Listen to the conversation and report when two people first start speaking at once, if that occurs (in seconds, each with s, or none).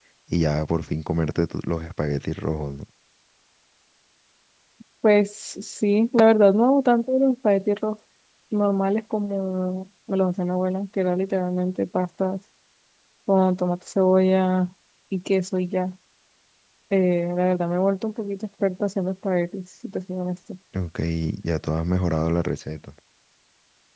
none